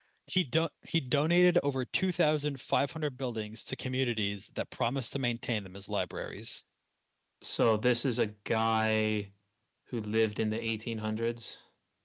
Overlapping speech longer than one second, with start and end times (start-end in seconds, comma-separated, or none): none